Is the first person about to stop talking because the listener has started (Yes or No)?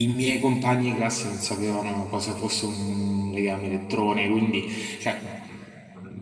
No